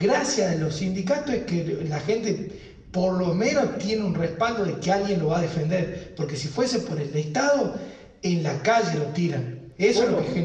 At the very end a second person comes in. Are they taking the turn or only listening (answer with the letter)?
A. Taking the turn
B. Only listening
A